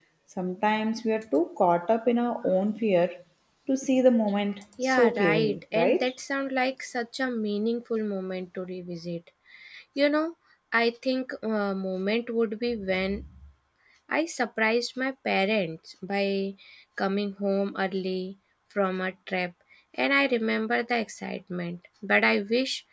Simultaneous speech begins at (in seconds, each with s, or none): 4.8 s